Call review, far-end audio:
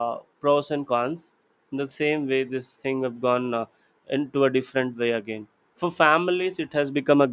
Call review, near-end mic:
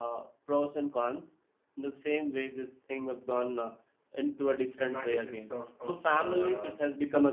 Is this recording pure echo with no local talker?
No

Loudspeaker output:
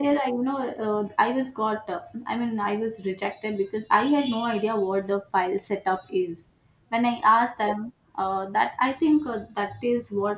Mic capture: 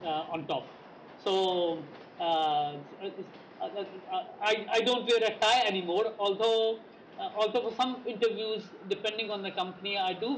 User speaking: Yes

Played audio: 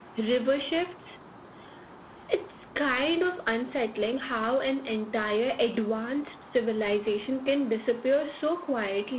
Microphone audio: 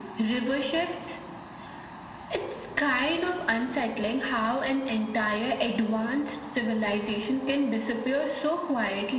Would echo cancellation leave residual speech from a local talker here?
No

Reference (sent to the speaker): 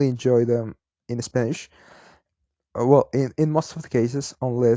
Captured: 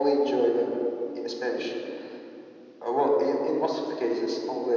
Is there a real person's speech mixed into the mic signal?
No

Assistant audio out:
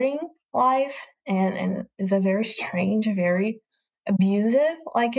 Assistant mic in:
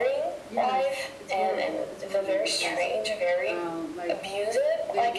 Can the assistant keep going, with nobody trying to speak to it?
No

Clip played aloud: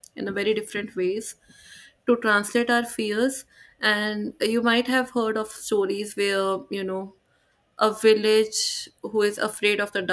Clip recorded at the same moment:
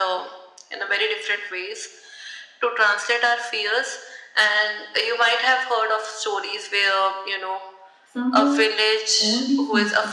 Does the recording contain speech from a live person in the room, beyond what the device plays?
Yes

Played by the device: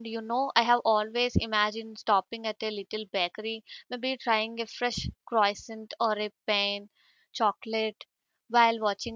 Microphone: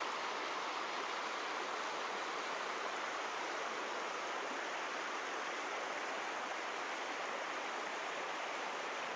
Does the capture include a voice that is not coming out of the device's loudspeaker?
No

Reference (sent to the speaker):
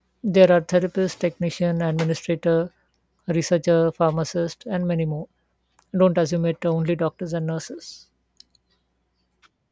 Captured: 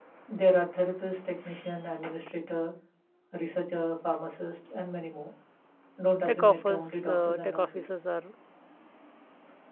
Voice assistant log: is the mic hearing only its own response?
No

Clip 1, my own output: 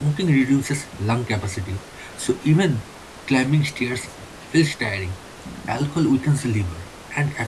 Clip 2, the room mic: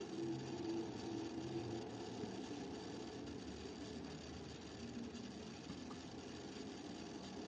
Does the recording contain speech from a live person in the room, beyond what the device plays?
No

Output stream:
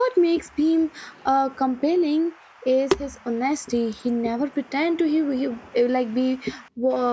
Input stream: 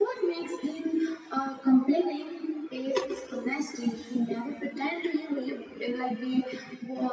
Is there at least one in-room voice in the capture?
No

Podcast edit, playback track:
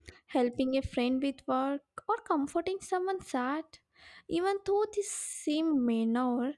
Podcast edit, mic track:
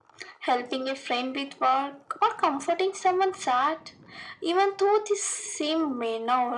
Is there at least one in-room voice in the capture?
No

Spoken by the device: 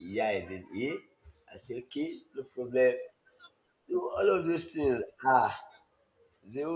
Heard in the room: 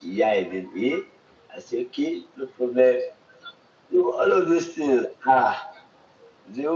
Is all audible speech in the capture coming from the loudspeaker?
Yes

